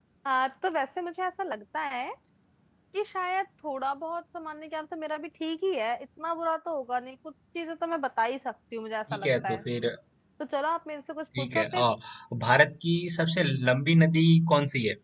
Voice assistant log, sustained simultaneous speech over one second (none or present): none